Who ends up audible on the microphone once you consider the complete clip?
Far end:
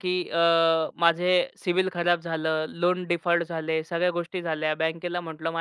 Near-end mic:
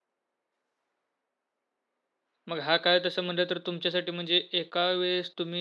user only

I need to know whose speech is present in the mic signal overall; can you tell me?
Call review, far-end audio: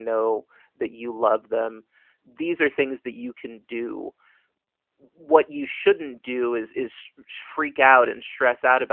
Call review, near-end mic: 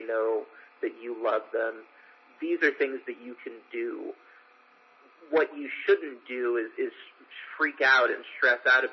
echo only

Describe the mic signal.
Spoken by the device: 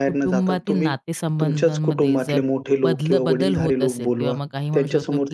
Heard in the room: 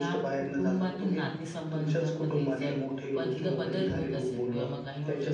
echo only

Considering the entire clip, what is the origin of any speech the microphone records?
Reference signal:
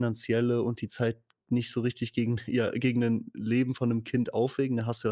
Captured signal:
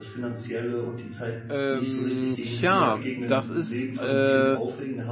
both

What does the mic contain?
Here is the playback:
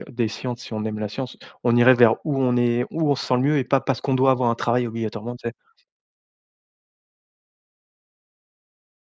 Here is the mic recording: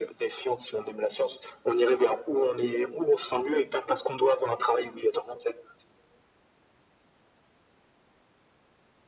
echo only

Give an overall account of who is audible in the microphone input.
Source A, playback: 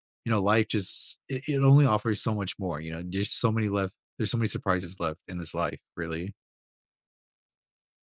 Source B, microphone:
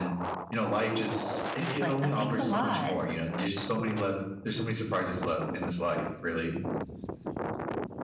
both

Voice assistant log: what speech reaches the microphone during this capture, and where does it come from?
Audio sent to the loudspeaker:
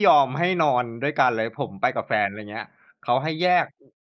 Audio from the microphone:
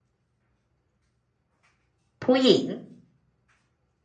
user only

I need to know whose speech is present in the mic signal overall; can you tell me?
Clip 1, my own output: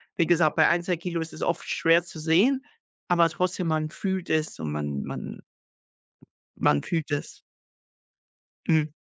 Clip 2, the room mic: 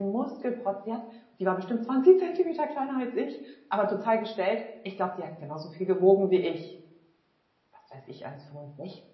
user only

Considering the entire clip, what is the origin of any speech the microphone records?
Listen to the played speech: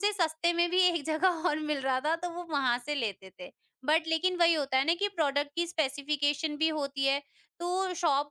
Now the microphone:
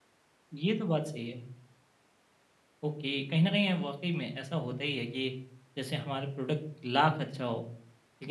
user only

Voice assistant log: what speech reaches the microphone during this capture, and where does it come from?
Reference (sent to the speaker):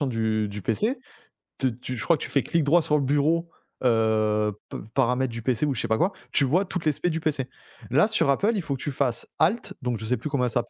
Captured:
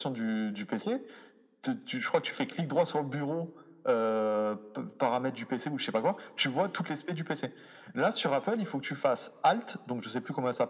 echo only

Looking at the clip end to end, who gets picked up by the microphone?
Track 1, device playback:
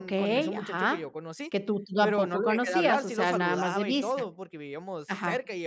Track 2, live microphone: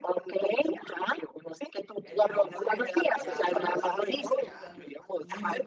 both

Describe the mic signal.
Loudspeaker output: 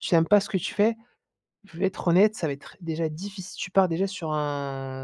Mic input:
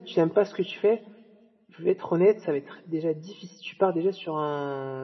echo only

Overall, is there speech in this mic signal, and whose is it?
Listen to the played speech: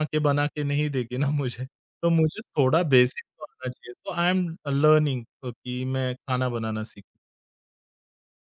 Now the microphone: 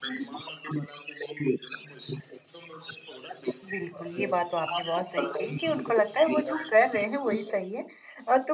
both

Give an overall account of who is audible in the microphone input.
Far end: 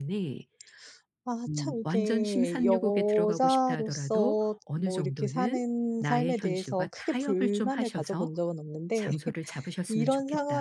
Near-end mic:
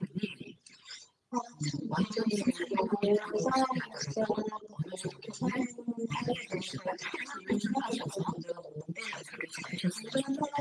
echo only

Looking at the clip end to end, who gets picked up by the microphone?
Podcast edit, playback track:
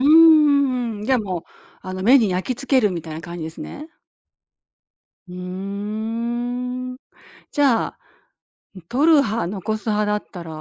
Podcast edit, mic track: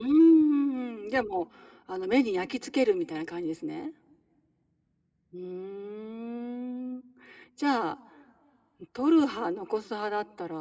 echo only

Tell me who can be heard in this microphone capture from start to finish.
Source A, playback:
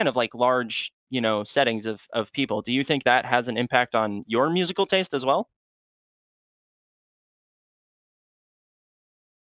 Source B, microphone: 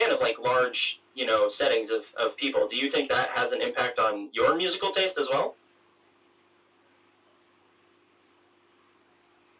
echo only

